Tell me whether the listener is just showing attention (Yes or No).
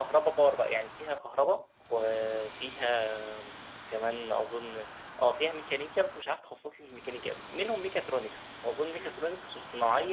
Yes